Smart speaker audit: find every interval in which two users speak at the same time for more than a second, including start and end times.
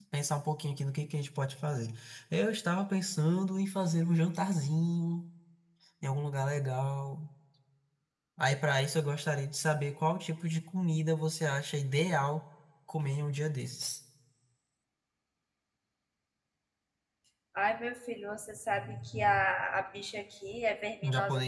none

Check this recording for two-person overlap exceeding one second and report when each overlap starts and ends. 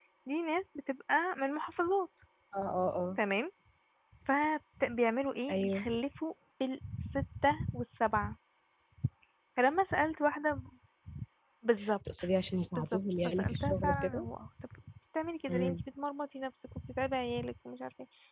12.8-14.3

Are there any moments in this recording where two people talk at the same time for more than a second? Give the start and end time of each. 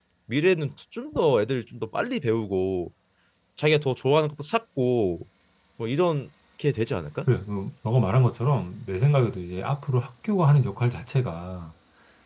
none

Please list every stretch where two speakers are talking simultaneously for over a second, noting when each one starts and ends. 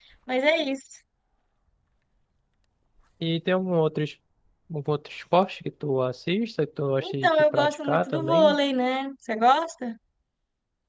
7.0-8.6

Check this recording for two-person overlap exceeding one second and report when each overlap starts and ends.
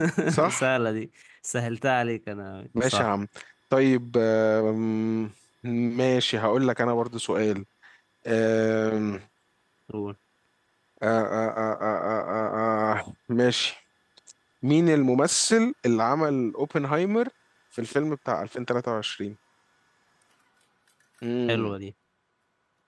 none

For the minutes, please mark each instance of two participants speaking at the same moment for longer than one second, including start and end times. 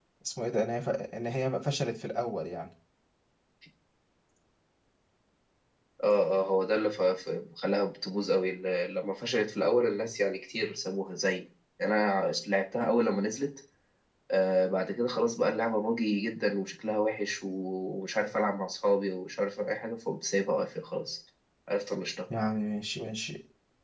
none

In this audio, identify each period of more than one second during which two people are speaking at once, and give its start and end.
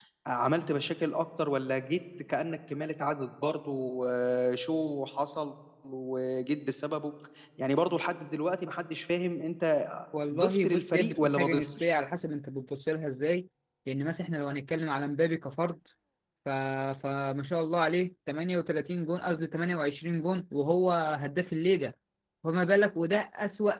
10.3-12.0

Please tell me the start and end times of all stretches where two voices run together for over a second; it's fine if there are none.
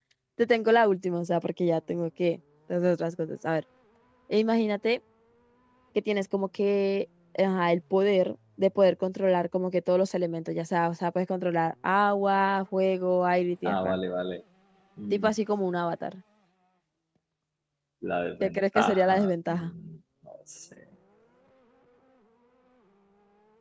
18.4-19.7

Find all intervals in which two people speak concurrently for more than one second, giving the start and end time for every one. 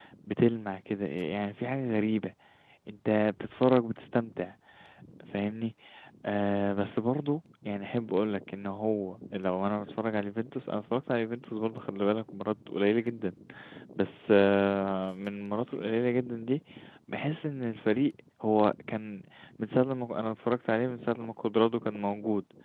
none

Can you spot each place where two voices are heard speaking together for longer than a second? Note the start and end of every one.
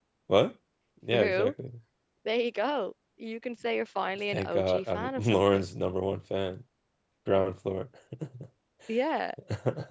4.3-5.7

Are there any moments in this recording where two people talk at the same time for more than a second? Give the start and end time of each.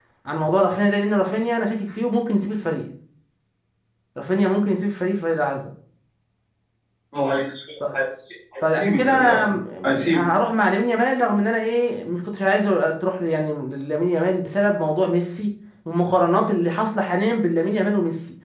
8.7-10.3

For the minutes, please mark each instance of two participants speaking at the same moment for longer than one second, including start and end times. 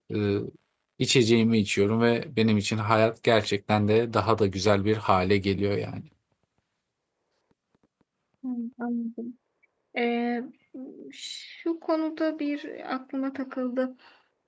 none

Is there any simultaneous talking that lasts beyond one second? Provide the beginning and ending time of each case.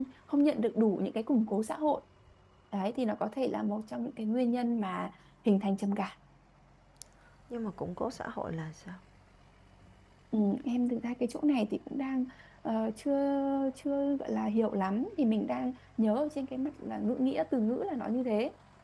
none

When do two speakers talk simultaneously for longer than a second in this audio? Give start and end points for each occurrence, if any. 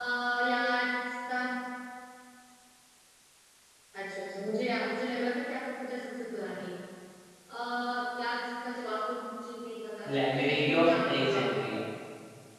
10.1-11.6

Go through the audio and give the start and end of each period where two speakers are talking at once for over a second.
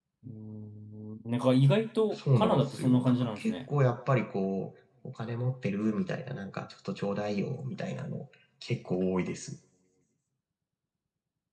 2.2-3.5

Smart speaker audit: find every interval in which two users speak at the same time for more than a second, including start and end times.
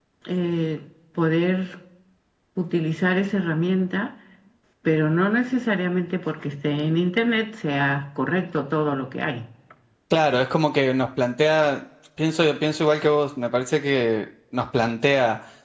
none

